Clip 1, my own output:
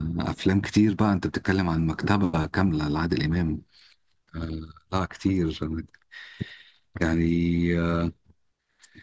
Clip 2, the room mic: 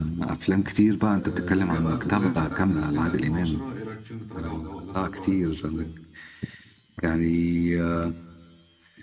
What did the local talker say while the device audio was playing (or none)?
أه نرجع بقى للفترة اللي هي بتاعت من 2000 ل 2010 إيه رأيك في فيلم تراجع ولا لا تراجع ولا استسلام